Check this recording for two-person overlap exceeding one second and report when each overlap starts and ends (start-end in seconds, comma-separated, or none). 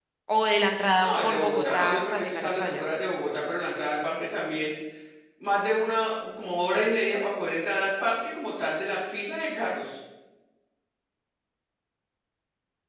1.0-2.8